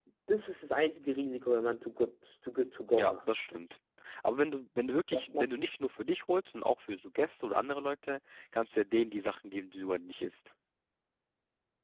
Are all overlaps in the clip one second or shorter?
Yes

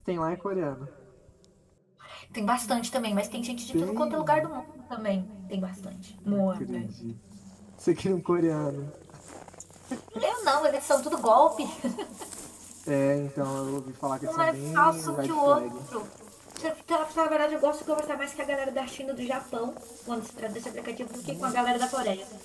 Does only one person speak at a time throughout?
No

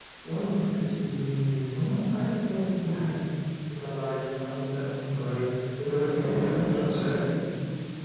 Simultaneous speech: Yes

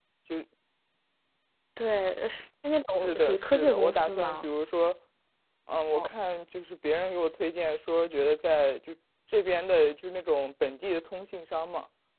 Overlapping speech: Yes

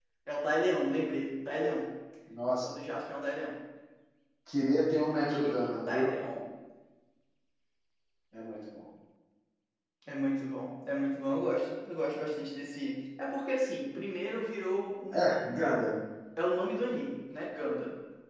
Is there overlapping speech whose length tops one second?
Yes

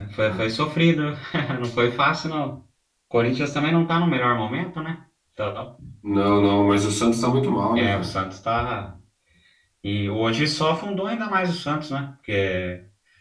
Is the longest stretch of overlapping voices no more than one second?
Yes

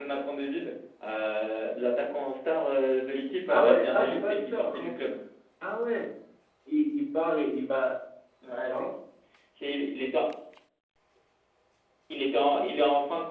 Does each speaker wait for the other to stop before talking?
No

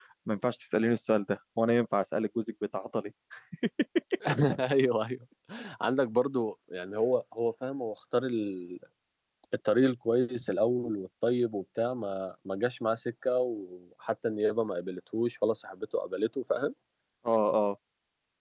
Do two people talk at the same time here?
No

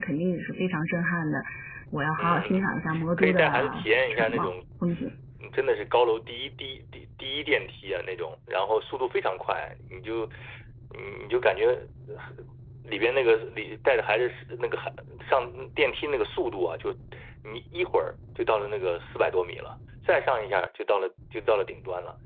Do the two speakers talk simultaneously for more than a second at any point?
Yes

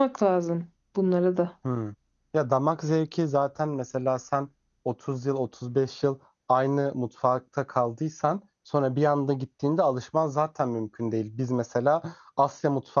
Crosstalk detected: No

